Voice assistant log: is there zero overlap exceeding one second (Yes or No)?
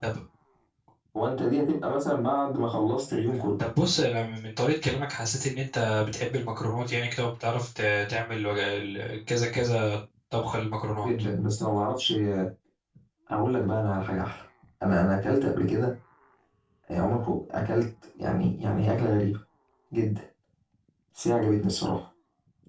Yes